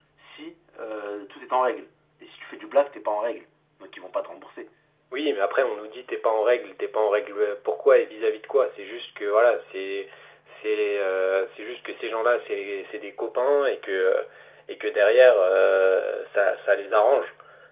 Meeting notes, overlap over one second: none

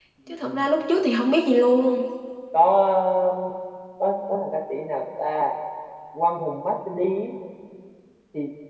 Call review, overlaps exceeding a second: none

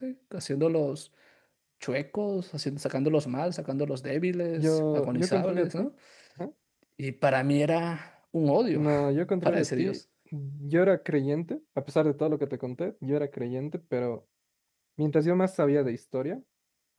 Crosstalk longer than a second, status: present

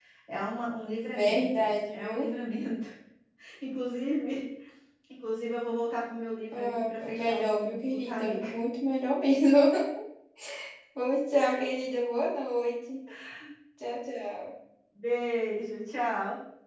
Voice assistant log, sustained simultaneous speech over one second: present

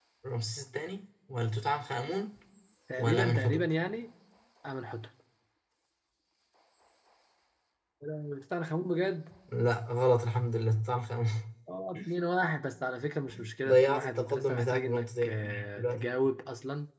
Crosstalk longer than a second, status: present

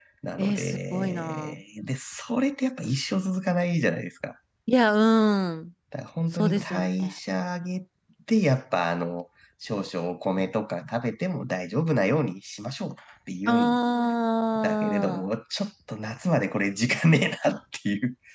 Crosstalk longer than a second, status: present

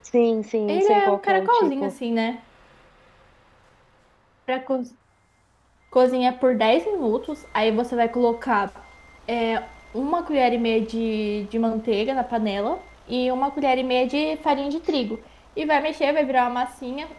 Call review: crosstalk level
present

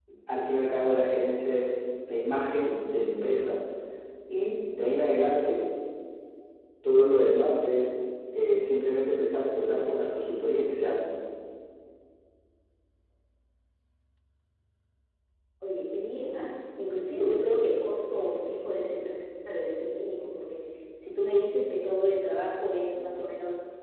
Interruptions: none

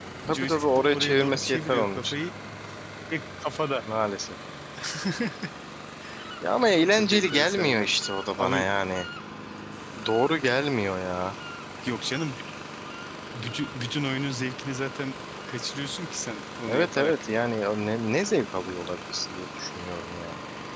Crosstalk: present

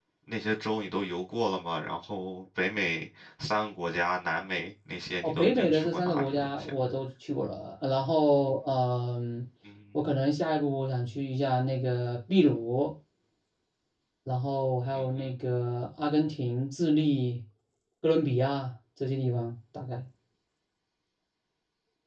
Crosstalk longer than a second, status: present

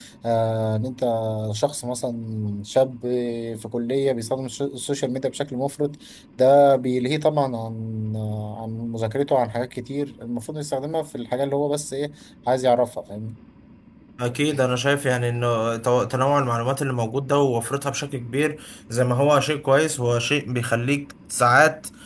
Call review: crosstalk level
none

